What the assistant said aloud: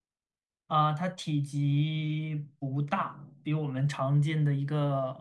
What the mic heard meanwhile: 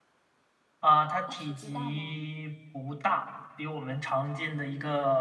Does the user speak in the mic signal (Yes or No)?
Yes